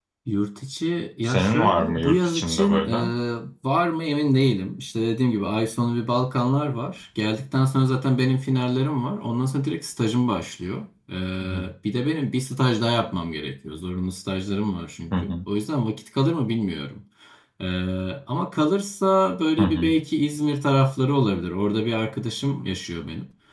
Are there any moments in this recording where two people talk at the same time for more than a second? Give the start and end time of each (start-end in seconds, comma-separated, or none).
1.2-3.1